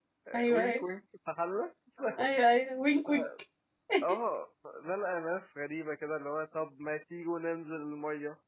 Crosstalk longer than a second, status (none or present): none